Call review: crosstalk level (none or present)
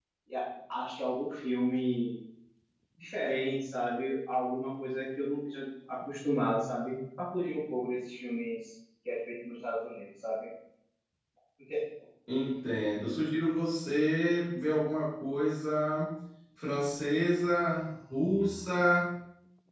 none